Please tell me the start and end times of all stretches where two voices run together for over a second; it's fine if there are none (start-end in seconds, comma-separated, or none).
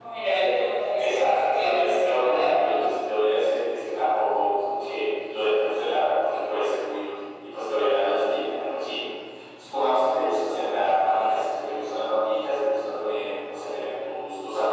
1.0-2.5